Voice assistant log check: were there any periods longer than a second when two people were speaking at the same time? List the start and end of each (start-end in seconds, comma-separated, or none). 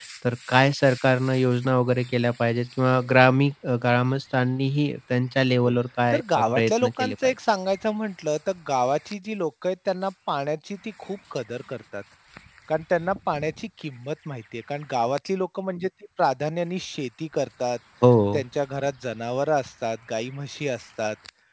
6.1-7.3